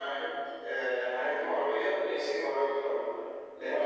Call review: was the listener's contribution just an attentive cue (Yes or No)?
Yes